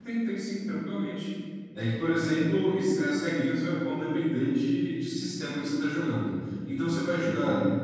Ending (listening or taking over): listening